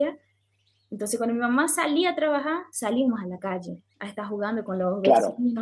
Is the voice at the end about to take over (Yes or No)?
No